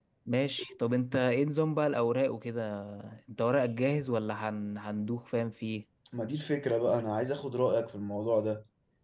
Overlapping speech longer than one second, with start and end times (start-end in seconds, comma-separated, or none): none